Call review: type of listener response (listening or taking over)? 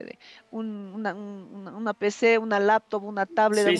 listening